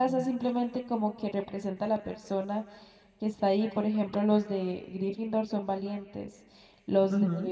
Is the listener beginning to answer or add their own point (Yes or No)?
No